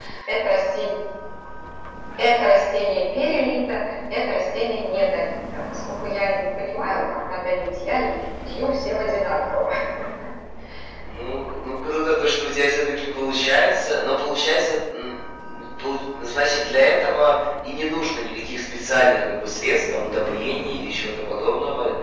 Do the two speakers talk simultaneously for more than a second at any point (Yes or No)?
No